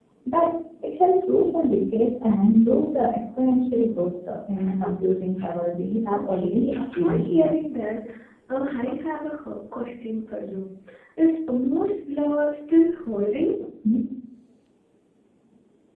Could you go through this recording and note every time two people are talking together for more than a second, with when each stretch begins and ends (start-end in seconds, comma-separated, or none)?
6.1-7.5